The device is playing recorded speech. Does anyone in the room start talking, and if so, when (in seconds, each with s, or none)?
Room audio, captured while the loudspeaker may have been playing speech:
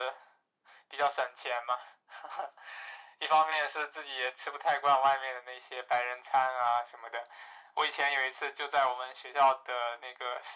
none